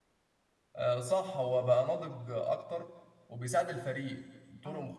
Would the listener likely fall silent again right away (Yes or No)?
Yes